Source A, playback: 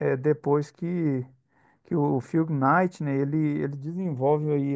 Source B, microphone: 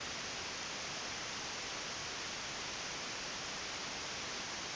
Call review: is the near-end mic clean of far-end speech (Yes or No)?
Yes